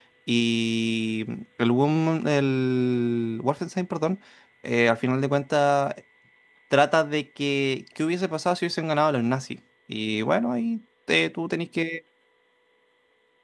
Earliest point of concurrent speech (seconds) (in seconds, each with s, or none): none